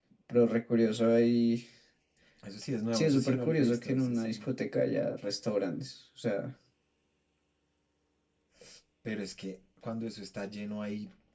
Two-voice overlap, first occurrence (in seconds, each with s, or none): 2.9 s